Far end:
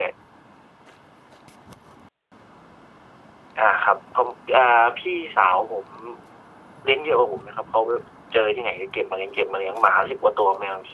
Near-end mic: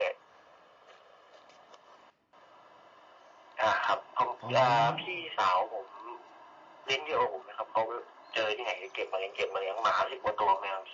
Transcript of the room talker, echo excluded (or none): อ๋อ